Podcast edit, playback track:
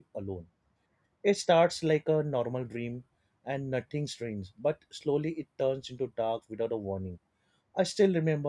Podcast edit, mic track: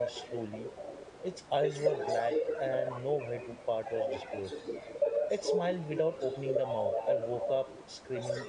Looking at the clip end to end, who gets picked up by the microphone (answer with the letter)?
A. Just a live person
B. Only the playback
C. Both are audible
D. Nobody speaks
C